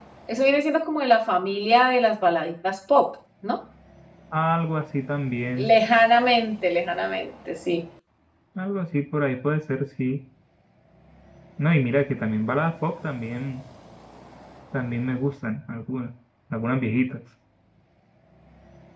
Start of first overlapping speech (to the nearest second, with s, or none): none